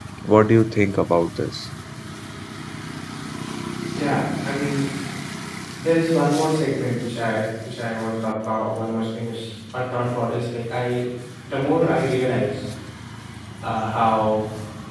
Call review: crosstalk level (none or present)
none